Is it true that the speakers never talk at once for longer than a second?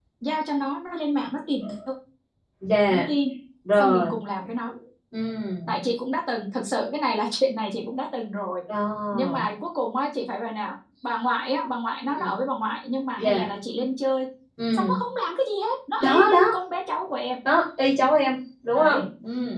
Yes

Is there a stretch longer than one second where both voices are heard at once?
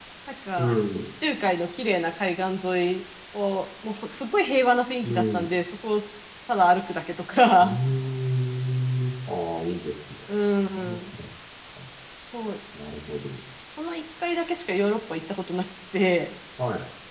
No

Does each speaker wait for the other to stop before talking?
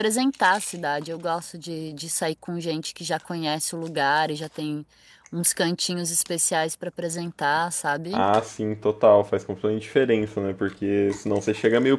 Yes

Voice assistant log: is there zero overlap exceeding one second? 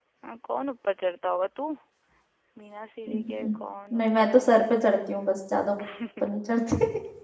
Yes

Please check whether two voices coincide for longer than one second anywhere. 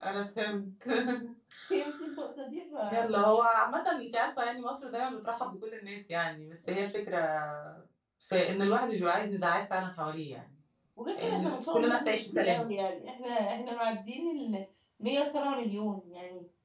Yes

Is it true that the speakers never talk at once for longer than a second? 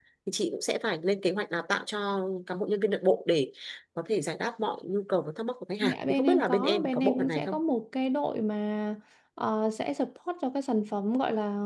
No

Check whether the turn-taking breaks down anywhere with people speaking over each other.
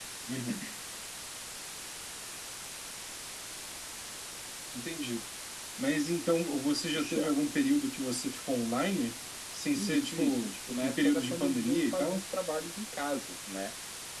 Yes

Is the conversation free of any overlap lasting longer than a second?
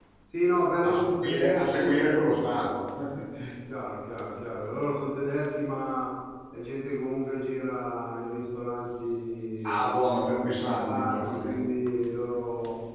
No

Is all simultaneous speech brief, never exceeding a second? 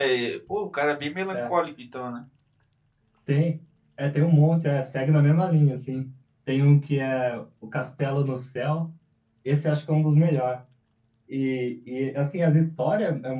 Yes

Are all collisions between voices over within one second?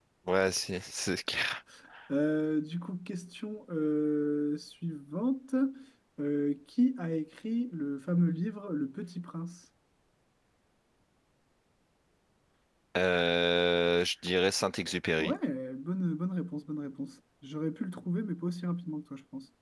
Yes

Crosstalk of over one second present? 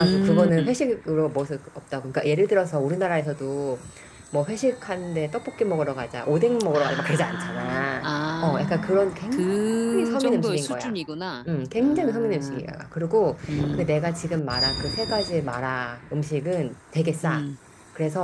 Yes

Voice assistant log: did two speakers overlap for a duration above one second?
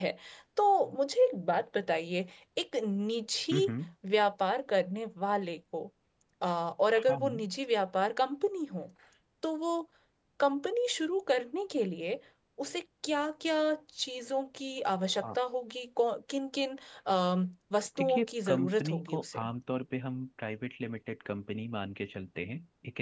Yes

